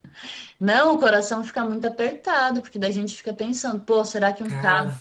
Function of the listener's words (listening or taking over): listening